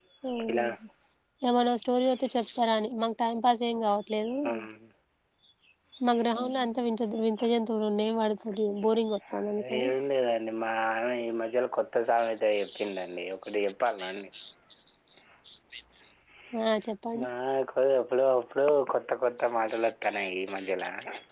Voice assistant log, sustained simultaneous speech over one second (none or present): none